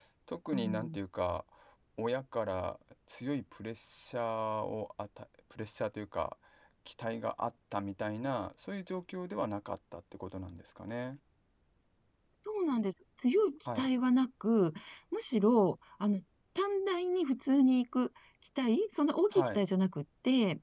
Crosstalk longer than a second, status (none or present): none